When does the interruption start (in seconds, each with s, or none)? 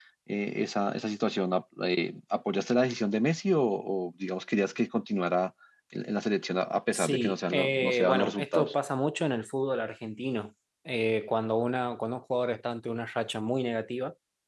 6.9 s